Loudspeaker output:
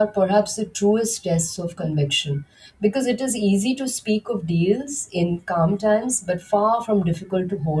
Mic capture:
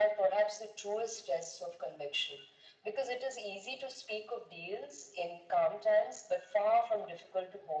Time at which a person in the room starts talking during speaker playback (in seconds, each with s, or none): none